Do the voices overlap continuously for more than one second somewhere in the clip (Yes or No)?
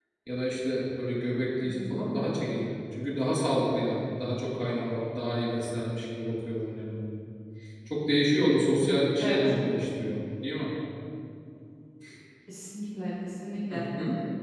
No